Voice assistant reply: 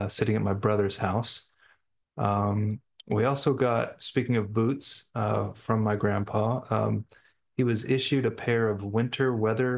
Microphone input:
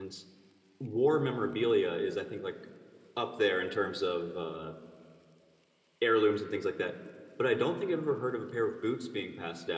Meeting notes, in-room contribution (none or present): present